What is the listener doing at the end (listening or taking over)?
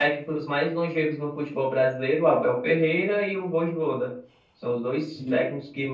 listening